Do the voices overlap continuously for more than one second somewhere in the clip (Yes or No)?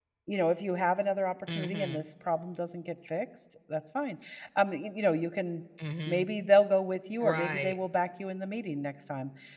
No